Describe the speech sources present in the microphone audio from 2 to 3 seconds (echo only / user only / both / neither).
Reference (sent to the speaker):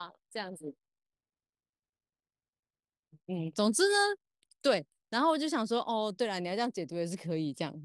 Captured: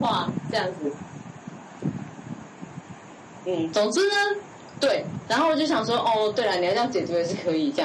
neither